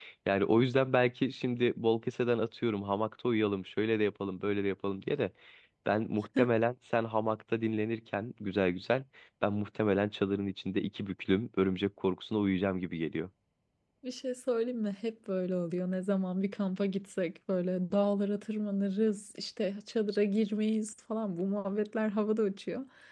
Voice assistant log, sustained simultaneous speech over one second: none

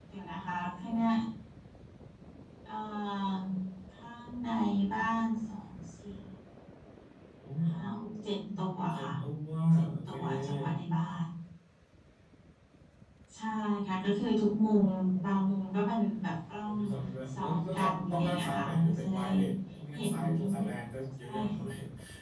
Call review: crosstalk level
present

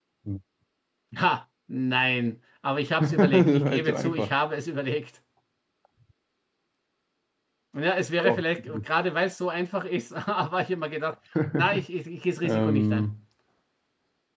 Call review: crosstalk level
present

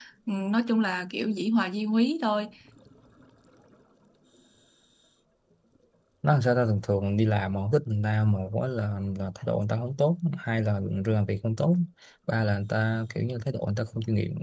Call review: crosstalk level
none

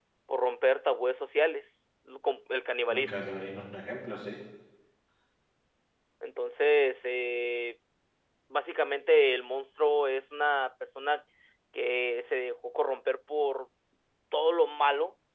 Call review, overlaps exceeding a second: none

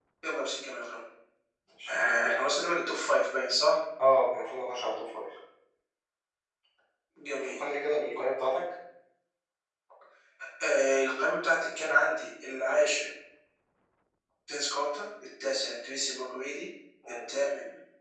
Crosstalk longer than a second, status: none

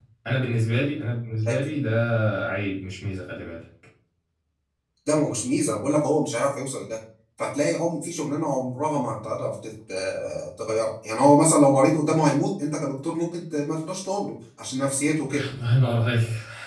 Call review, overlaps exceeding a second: none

